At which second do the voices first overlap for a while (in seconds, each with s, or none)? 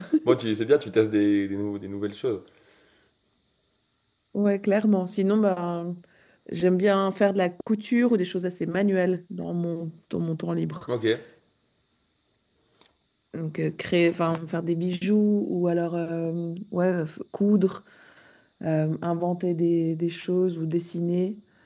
none